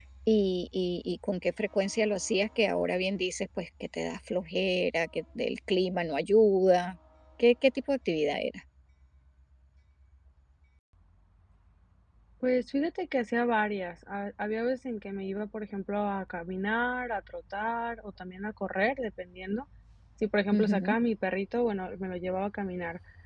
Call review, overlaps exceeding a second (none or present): none